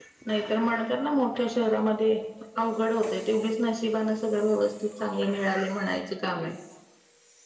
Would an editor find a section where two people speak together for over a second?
No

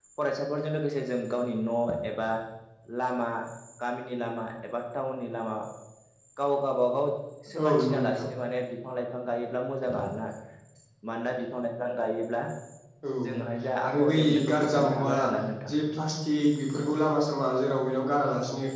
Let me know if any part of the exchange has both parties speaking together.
Yes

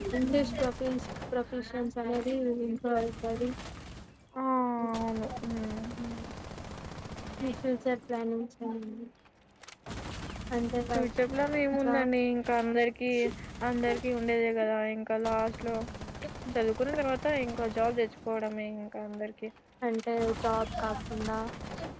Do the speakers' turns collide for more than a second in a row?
No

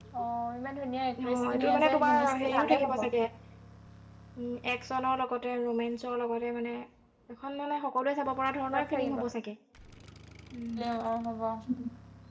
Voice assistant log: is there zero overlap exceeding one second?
No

